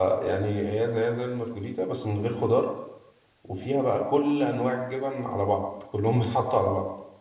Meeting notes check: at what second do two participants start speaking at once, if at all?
none

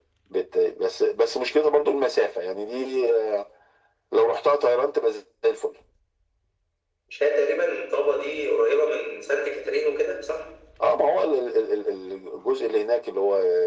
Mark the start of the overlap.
none

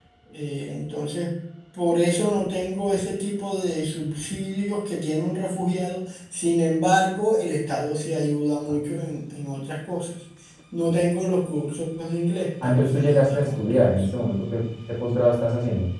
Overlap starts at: 12.6 s

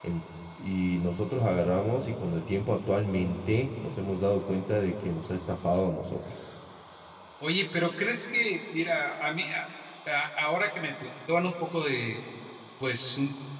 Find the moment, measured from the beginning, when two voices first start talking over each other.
none

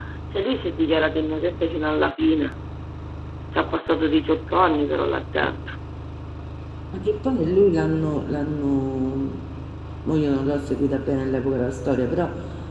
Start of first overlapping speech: none

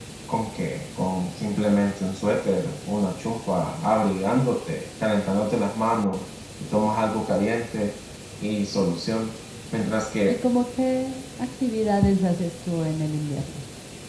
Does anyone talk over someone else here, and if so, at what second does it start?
none

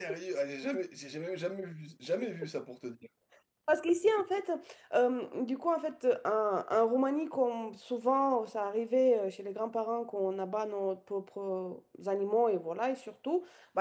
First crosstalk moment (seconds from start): none

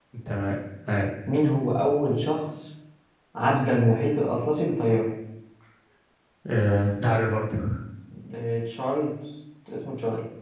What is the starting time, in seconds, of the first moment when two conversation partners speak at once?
none

